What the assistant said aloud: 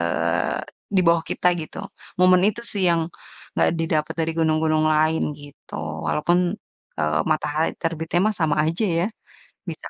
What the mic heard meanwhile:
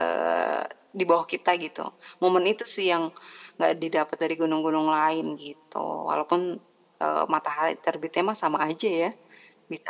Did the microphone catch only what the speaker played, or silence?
Yes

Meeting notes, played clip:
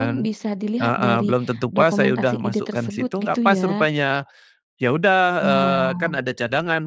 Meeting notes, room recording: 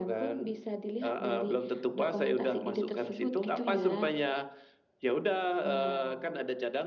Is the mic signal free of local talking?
Yes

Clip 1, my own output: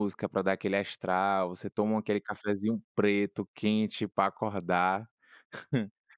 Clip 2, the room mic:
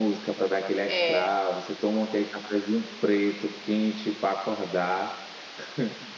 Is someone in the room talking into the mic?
Yes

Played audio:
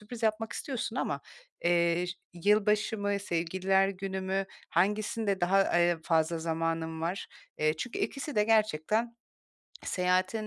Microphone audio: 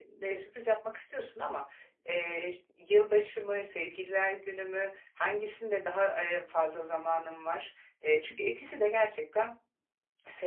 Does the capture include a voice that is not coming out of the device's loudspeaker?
No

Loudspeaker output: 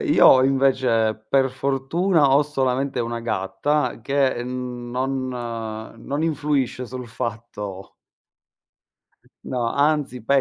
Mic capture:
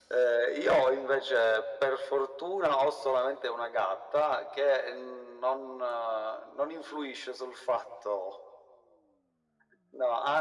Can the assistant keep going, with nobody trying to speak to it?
Yes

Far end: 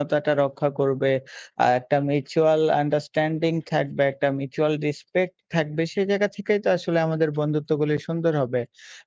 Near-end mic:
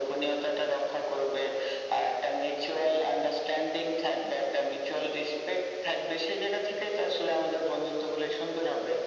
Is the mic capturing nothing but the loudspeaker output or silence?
Yes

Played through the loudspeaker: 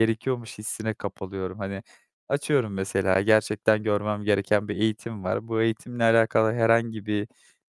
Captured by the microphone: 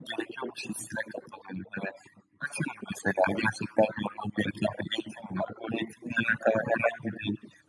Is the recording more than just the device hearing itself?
No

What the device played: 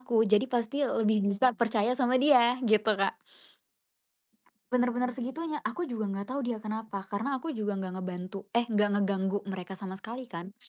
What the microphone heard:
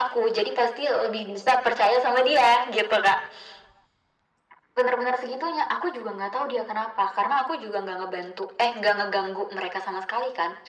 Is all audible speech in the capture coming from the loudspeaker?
Yes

